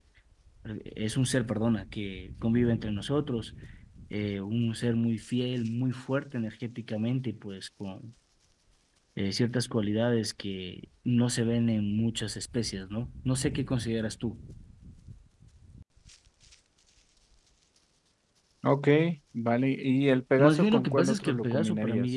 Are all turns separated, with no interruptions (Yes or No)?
No